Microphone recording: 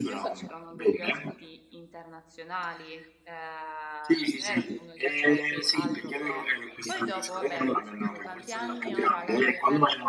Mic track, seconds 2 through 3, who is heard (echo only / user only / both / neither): user only